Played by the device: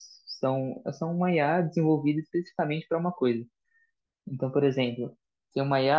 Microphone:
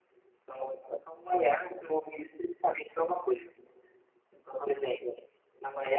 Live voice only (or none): none